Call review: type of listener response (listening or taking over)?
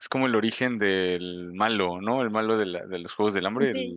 listening